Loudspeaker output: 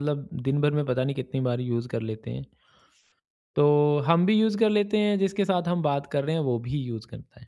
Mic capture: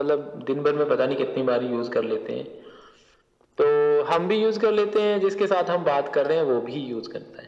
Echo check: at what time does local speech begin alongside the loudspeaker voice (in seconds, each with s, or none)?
none